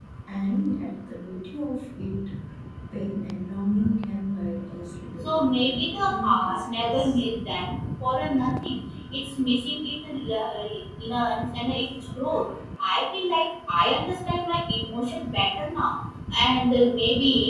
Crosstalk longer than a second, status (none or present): present